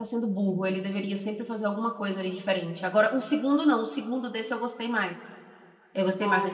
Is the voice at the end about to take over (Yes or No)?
No